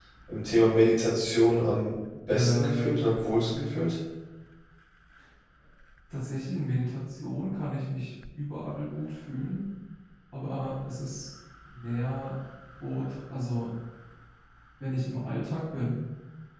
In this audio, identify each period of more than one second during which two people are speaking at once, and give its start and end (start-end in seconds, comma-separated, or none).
2.3-3.7